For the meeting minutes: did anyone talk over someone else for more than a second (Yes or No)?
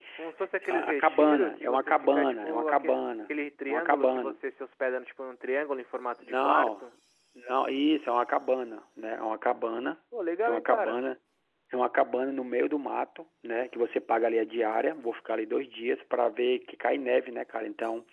Yes